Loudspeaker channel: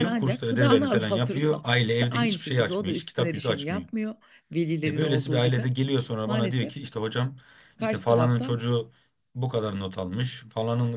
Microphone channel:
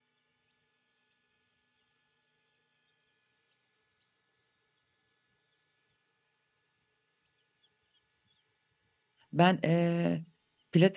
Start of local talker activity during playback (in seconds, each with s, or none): 9.3 s